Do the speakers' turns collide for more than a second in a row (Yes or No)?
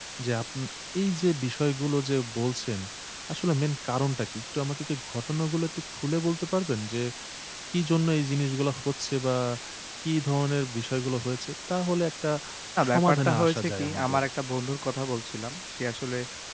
Yes